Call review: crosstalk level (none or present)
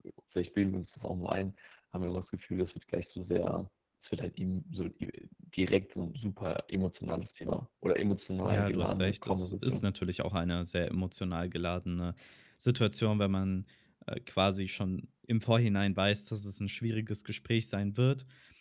present